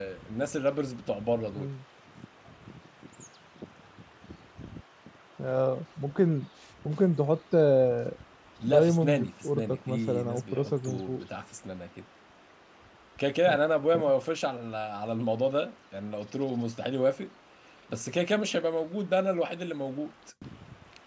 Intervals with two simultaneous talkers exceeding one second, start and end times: 8.7-11.2

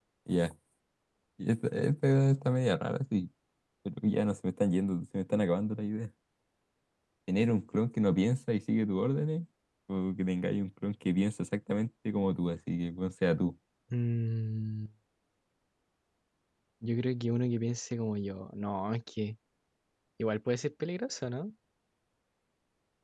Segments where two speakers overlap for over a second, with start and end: none

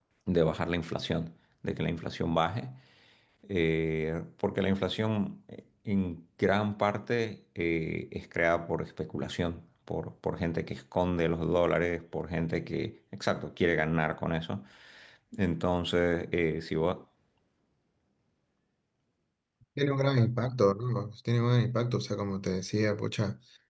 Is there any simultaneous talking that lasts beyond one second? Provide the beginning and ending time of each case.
none

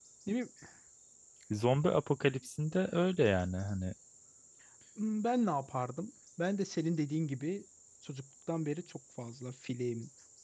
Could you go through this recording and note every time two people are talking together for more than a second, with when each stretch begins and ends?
none

